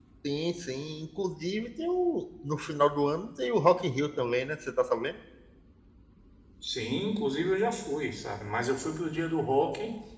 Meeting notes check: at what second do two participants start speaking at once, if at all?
none

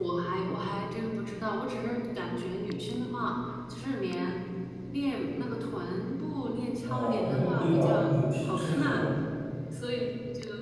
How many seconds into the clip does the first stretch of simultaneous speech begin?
7 s

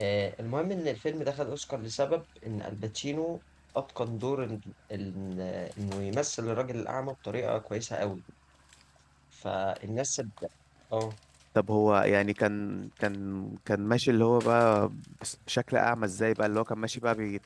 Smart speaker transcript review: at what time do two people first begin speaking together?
none

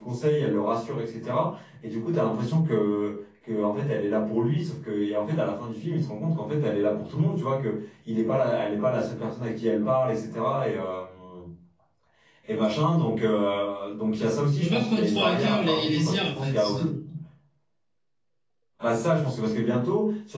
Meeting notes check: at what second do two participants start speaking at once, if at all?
15 s

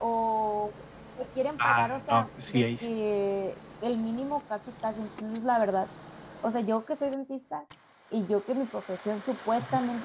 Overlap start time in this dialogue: 2 s

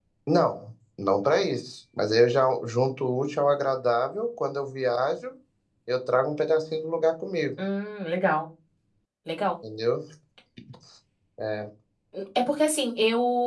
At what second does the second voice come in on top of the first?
none

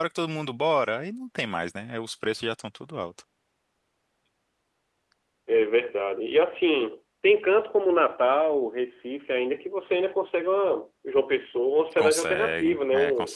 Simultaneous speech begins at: 12 s

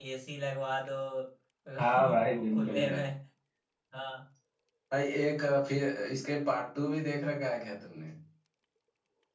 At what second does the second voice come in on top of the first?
2 s

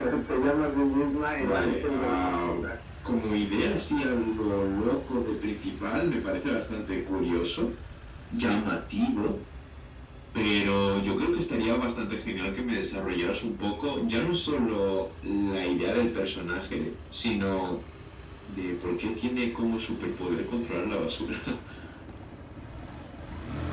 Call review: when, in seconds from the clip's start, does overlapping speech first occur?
1 s

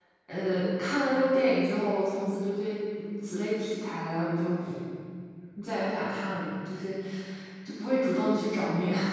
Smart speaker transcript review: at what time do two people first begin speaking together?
none

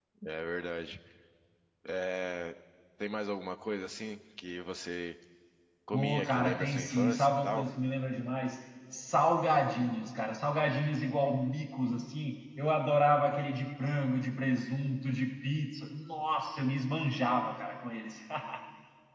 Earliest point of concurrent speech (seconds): 6 s

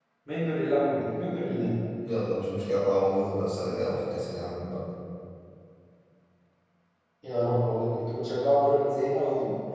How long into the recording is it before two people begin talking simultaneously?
none

